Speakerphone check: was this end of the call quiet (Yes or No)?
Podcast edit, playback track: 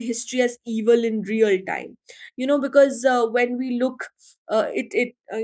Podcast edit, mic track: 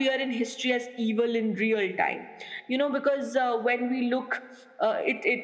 Yes